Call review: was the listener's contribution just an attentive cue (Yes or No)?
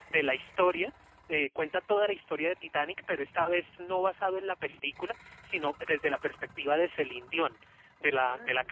Yes